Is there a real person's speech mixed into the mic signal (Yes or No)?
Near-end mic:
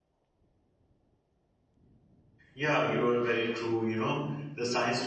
Yes